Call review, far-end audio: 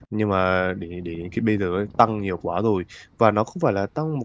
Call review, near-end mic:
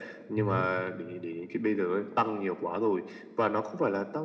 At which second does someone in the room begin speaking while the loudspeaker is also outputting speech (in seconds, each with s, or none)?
0.4 s